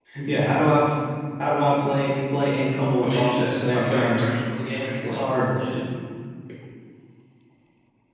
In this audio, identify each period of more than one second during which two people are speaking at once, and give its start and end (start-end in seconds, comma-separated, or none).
3.0-4.3